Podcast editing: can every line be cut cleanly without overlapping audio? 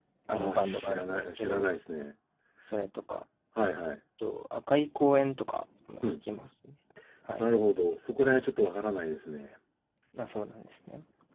No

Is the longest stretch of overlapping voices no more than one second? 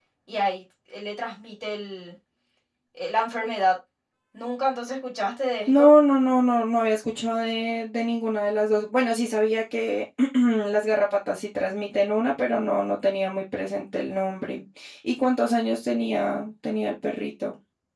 Yes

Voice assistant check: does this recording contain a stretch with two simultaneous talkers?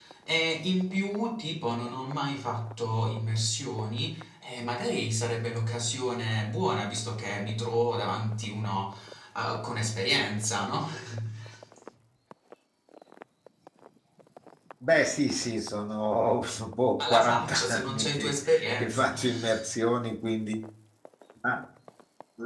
Yes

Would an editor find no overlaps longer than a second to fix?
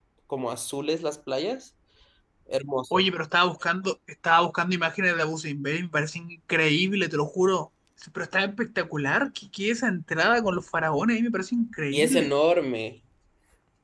Yes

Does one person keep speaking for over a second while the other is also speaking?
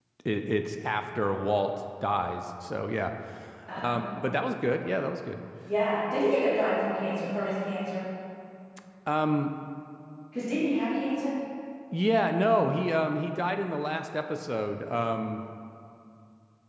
No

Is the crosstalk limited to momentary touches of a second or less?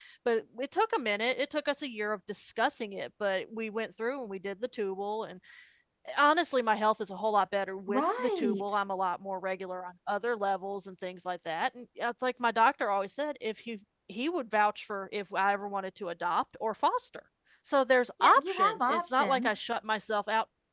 No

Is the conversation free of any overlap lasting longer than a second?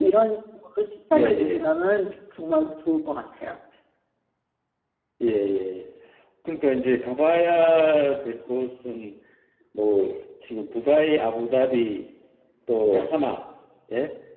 Yes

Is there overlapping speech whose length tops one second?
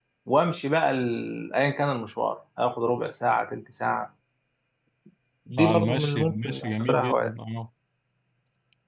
Yes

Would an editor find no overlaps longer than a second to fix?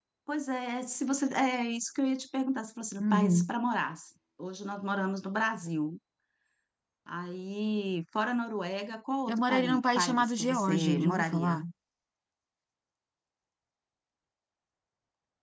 No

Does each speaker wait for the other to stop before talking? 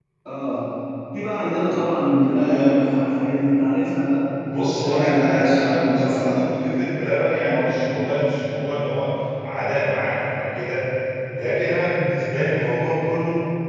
No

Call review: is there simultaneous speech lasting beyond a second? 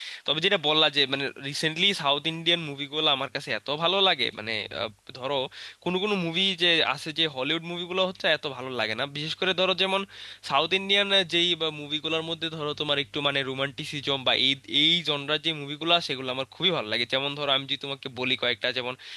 No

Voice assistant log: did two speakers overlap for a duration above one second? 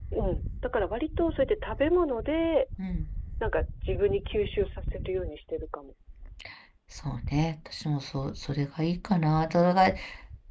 No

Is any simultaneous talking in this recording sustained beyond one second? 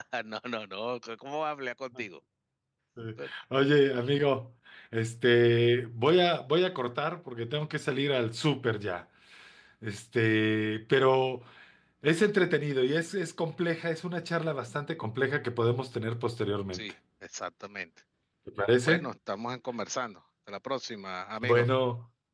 No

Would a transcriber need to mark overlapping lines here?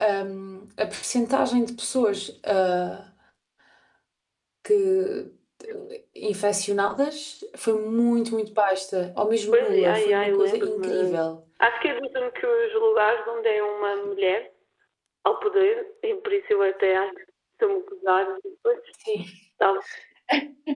Yes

